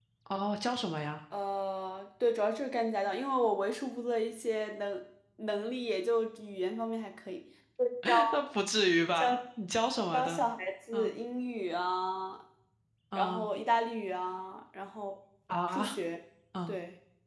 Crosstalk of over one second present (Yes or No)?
No